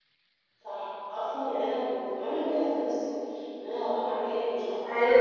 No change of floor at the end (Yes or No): Yes